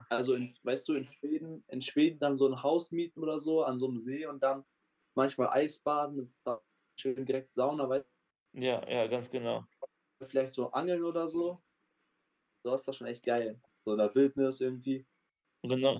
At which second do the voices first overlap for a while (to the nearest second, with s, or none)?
none